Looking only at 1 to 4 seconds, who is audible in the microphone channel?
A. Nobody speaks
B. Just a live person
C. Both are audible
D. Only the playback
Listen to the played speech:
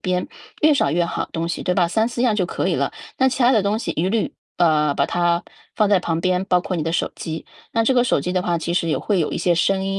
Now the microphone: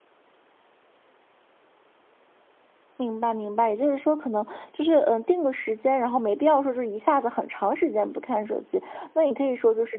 B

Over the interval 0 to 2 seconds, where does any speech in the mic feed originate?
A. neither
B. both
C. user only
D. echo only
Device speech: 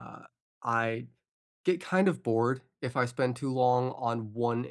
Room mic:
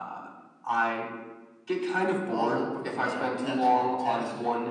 D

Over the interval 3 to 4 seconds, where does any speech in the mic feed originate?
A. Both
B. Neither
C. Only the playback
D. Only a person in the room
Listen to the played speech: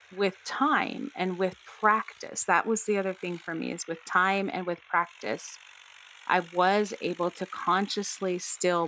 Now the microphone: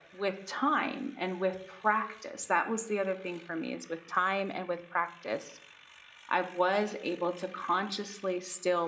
C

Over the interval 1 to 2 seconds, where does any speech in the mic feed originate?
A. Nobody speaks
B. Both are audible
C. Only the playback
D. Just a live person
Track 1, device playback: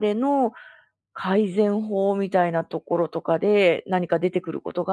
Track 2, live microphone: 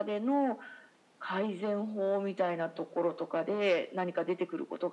C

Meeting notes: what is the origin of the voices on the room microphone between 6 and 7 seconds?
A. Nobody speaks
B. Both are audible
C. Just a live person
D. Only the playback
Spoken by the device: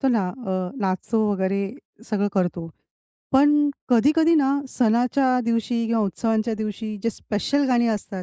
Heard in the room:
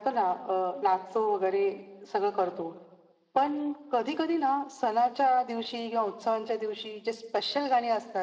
D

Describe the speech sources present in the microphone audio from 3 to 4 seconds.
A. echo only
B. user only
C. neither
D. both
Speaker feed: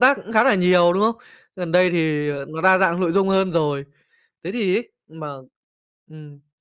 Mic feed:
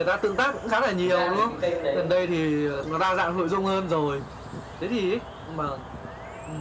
A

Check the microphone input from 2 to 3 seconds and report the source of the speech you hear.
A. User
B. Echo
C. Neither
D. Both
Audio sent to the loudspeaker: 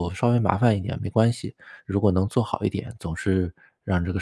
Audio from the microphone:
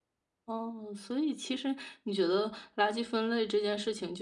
A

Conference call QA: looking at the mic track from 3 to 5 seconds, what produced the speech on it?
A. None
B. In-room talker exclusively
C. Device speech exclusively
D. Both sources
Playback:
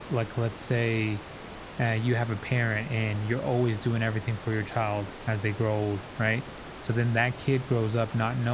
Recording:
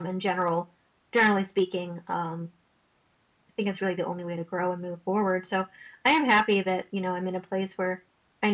B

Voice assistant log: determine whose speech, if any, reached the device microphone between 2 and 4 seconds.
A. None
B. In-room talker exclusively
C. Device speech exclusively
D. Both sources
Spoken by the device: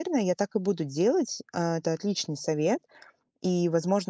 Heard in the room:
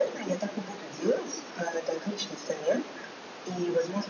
C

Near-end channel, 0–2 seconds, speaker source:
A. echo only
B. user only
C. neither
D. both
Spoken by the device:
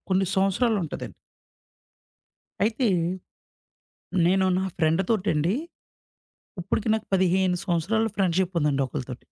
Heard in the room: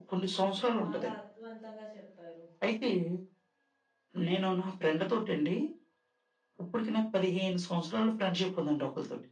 D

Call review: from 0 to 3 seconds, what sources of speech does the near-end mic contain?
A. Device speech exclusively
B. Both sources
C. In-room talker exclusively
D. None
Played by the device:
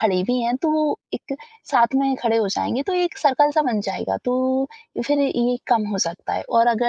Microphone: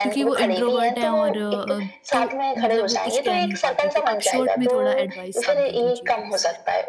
B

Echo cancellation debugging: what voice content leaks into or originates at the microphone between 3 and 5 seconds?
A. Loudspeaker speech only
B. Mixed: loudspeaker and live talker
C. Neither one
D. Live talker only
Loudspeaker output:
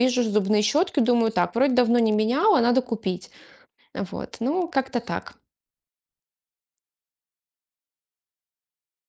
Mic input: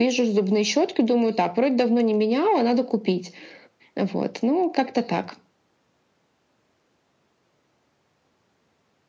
A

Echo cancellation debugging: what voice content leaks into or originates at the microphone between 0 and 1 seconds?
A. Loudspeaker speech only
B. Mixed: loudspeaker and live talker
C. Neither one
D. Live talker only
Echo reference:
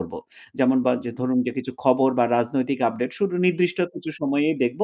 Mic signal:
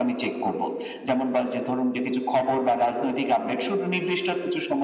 A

